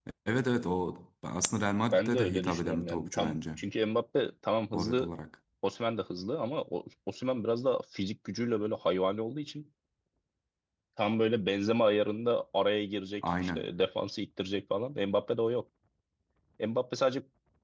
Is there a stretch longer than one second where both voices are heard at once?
Yes, from 1.9 s

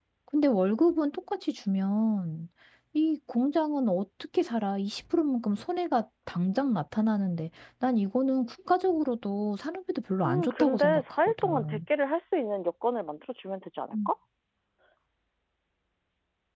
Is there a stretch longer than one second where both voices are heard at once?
Yes, from 10.2 s

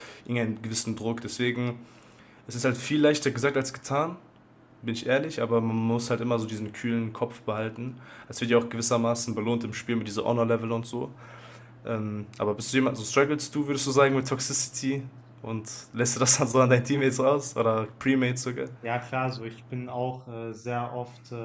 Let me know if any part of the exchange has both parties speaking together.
No

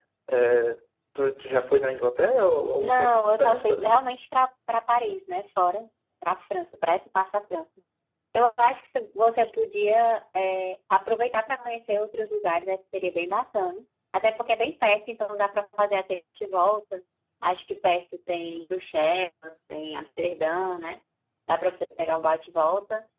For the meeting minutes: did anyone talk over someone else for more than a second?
Yes, from 2.8 s

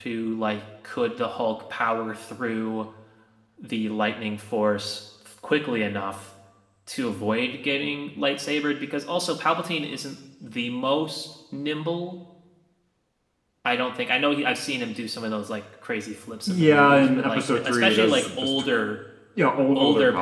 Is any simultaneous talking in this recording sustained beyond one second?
Yes, from 16.5 s

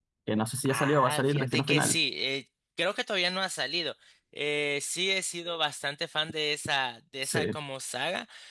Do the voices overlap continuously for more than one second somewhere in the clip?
Yes, from 0.6 s

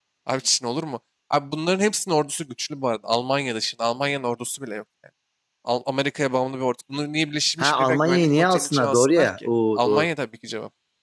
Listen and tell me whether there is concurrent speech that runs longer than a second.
Yes, from 7.6 s

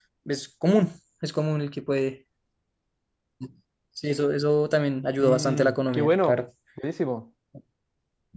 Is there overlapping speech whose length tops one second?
Yes, from 5.2 s

